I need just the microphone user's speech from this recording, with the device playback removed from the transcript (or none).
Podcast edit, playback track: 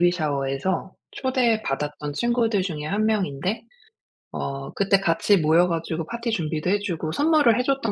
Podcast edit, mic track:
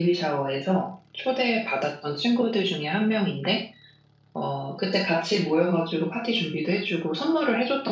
none